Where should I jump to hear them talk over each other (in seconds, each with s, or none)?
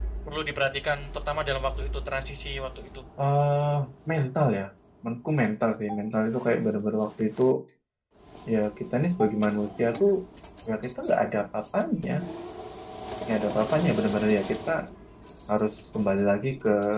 none